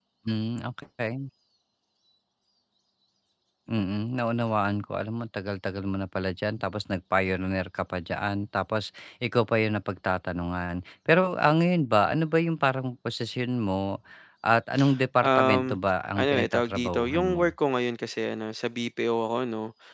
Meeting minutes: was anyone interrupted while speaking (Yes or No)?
Yes